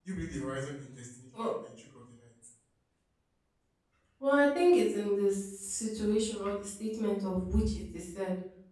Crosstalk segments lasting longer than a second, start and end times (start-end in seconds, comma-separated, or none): none